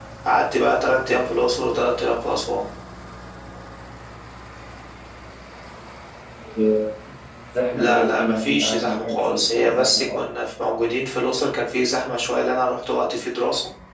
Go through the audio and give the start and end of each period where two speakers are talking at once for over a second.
7.7-10.2

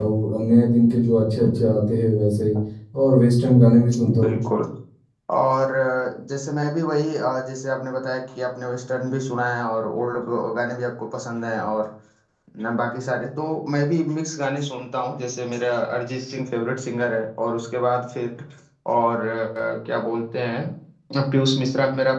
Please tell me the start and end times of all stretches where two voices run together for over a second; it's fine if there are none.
none

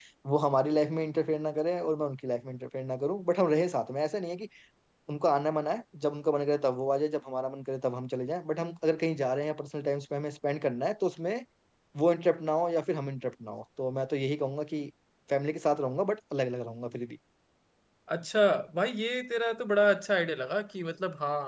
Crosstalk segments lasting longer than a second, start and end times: none

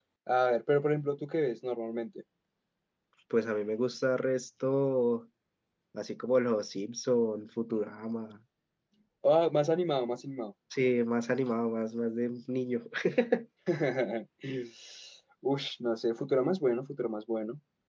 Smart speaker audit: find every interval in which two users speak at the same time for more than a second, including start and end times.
none

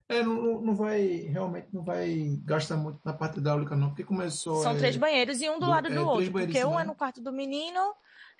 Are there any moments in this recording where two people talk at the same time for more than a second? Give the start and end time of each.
5.6-6.9

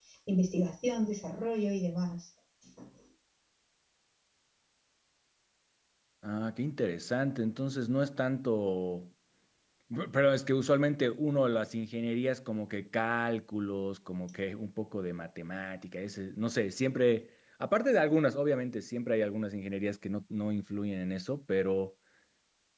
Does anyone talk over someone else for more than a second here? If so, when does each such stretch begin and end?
none

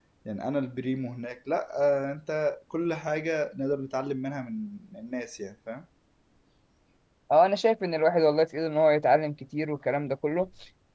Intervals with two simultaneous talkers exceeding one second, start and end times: none

